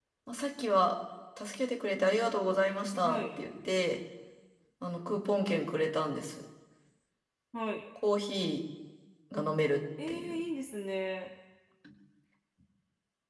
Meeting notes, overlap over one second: none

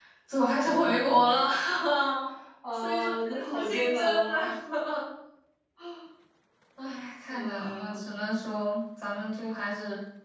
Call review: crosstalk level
present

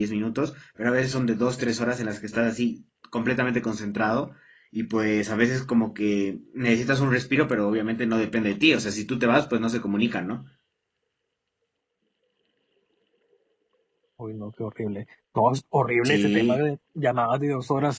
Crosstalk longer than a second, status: none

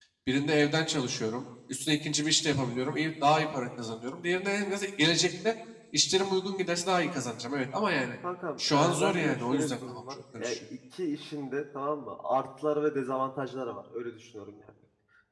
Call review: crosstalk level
present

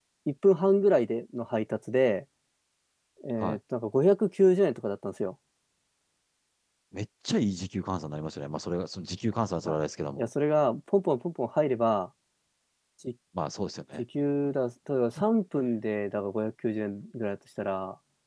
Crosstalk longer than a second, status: none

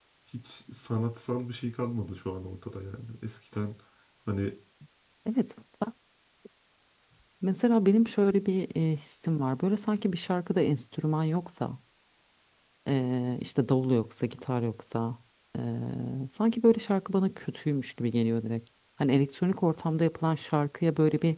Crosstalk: none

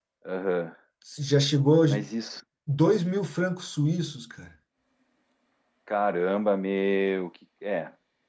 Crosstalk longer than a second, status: none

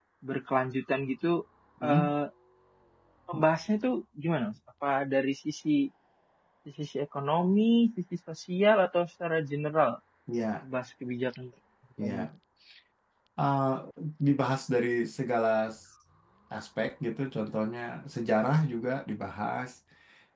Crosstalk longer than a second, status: none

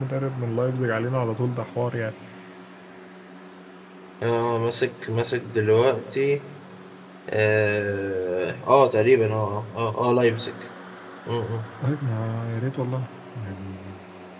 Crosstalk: none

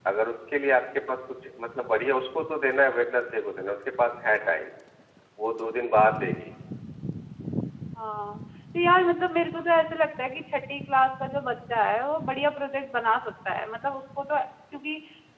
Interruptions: none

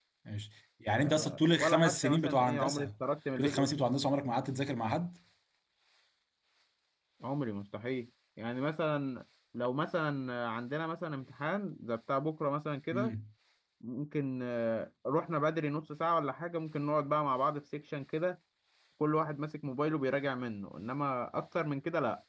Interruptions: present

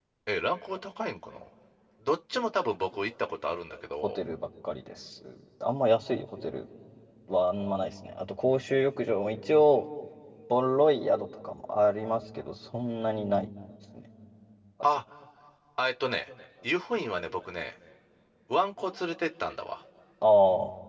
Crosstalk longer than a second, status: none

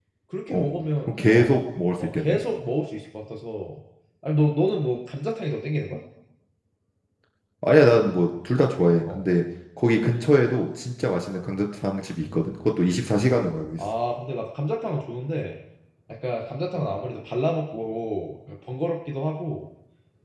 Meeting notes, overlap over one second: none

